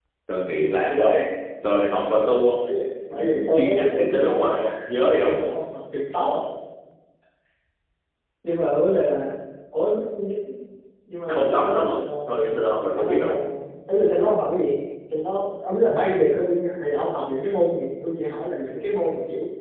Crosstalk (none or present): present